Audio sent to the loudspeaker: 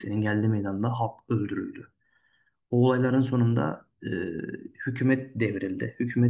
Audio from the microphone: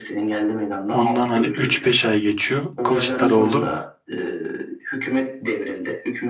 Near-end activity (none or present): present